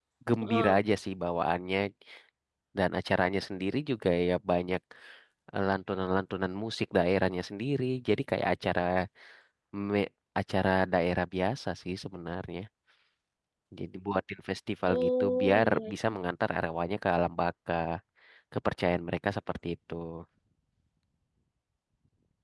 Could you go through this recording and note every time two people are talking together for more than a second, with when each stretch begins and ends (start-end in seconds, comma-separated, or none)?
14.9-16.1